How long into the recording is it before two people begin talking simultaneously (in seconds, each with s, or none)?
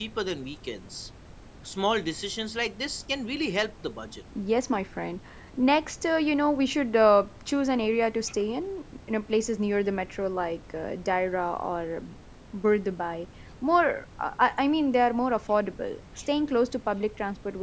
none